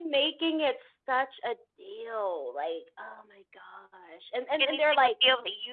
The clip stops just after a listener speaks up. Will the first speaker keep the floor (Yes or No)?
No